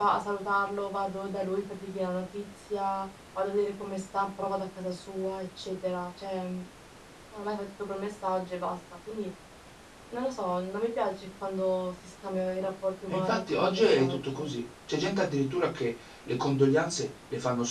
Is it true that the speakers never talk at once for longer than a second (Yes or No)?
No